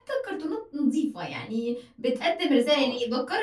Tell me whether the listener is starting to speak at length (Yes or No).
No